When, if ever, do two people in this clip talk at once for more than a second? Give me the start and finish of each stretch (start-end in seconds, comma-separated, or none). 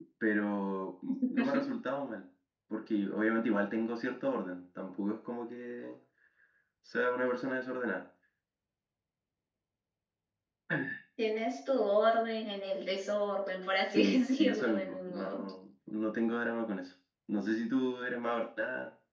13.9-15.4